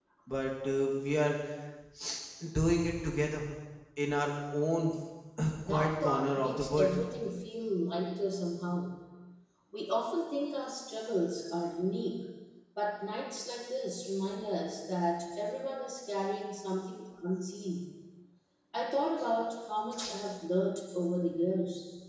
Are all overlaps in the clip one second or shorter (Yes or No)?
No